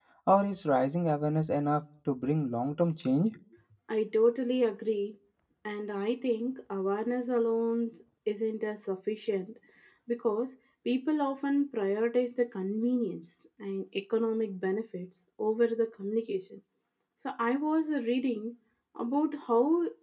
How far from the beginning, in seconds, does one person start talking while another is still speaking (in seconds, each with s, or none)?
none